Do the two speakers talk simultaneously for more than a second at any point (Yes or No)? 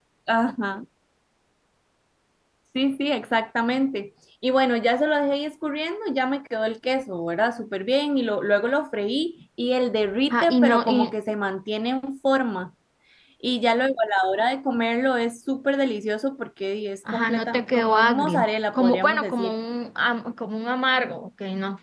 Yes